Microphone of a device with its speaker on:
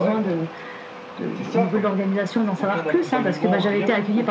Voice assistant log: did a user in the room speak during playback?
Yes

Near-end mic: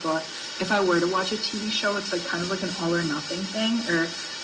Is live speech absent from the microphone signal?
Yes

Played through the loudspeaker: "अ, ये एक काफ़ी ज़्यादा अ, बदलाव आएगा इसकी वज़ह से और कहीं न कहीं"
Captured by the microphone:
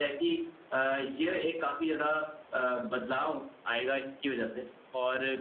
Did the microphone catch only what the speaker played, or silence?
Yes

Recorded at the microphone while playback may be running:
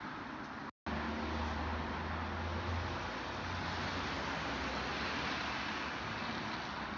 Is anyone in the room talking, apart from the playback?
No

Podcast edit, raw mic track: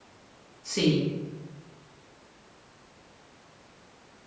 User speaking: Yes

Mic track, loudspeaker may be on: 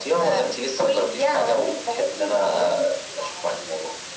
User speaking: No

